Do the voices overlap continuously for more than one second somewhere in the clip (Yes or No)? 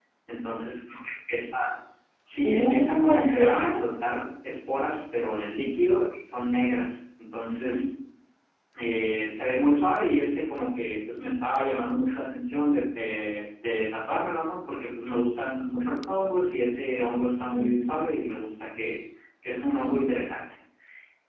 Yes